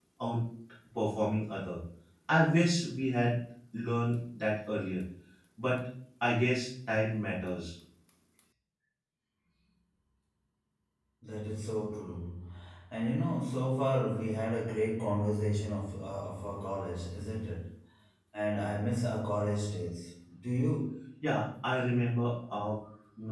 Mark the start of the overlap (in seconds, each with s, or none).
none